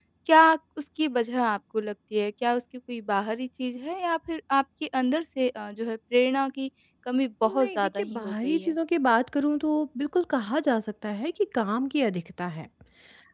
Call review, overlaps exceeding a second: present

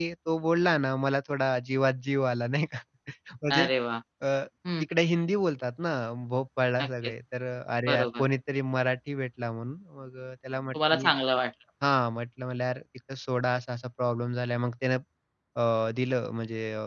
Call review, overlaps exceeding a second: none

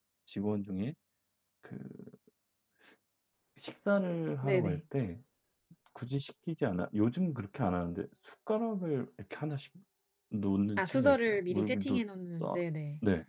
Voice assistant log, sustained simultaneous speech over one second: present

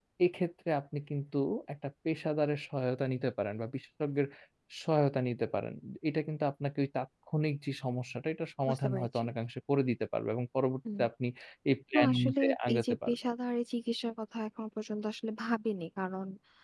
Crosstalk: present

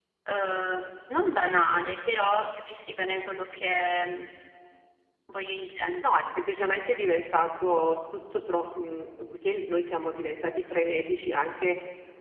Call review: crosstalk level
none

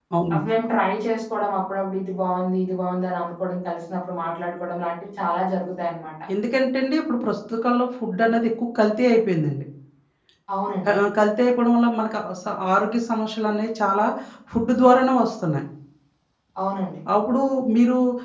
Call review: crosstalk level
none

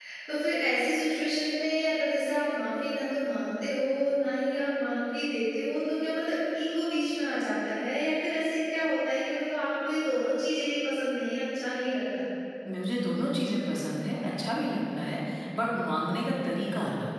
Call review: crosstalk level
none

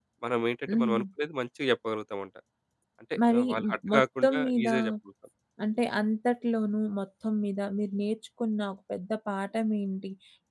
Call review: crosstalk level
present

